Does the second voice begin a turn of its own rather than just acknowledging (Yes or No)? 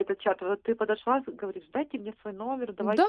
Yes